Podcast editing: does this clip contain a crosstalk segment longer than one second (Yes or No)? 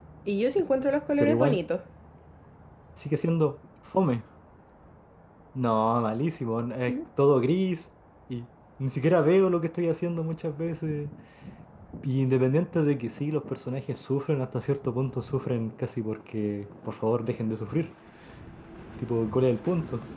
No